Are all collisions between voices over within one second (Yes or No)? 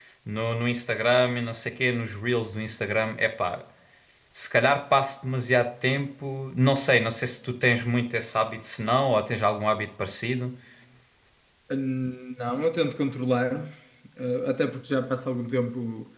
Yes